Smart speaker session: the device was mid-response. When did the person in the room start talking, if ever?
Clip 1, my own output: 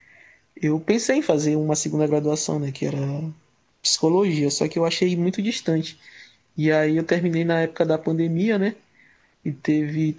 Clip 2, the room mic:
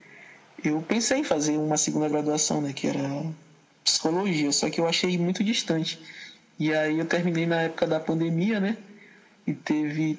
none

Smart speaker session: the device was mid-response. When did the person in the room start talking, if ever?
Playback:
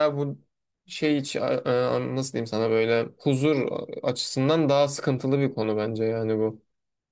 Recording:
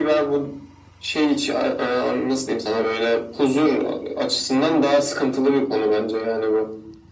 none

